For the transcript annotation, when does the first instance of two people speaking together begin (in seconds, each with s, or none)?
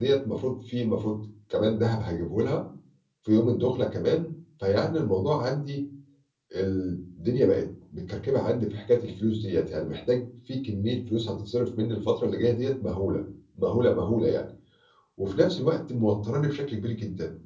none